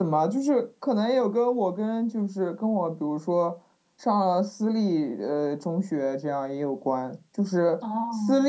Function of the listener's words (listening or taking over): listening